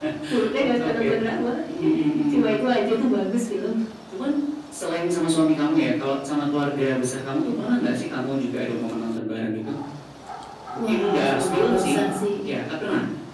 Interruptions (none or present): present